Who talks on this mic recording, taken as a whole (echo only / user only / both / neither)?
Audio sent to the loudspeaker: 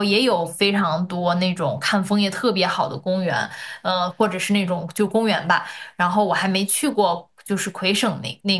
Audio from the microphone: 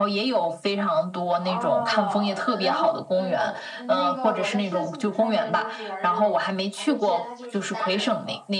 both